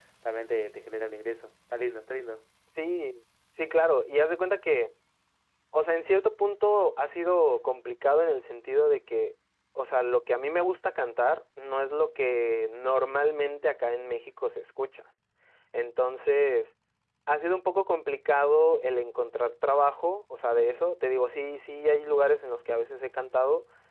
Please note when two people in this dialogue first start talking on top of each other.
none

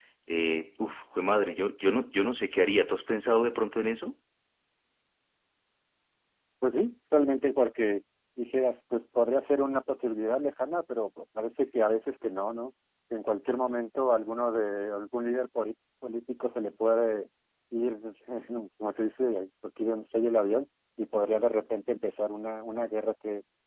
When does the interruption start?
none

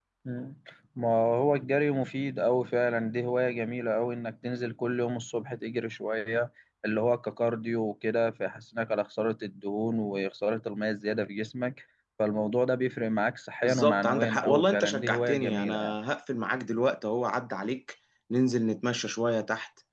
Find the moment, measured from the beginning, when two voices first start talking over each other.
13.6 s

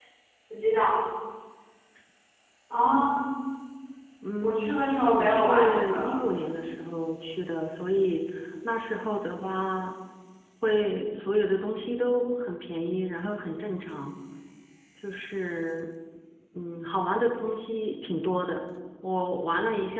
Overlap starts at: 4.4 s

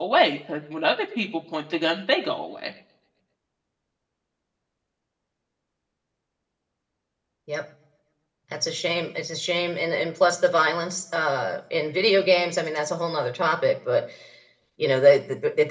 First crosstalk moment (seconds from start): none

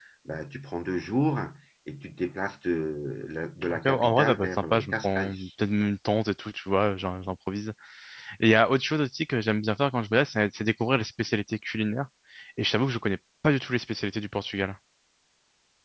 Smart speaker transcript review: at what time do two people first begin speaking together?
3.6 s

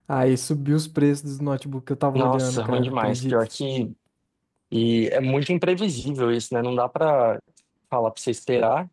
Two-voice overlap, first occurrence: 2.1 s

